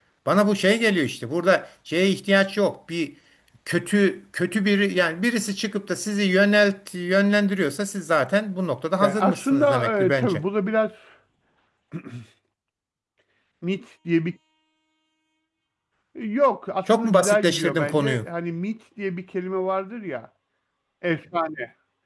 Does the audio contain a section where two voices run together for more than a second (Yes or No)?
Yes